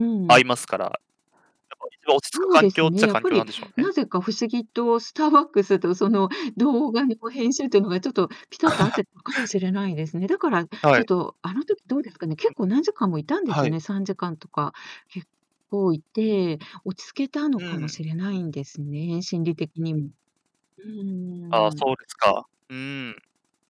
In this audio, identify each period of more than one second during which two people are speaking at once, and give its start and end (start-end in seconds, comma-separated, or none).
2.3-3.6